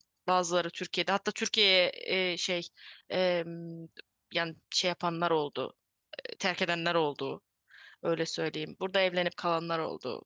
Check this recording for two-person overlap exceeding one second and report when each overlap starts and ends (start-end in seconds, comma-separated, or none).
none